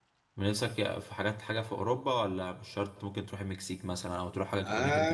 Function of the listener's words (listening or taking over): taking over